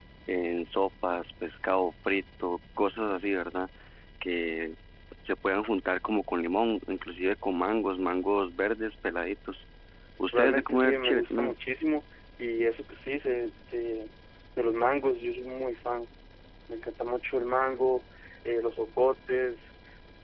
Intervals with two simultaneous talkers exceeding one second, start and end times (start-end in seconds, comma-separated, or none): 10.3-11.6